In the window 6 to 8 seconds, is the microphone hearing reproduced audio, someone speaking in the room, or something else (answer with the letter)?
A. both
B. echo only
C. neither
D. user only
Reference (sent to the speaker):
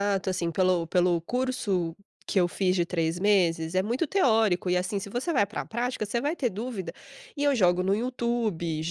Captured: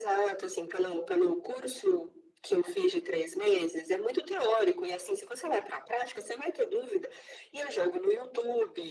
B